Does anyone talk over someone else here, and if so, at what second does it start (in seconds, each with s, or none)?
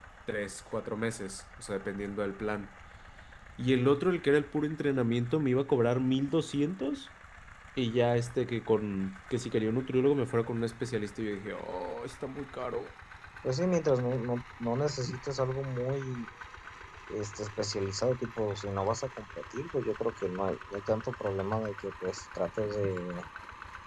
none